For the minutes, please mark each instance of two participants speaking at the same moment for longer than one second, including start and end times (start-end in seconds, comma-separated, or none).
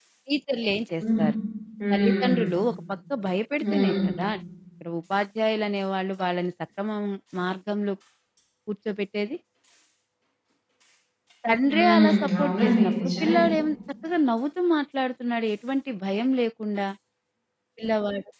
11.7-13.3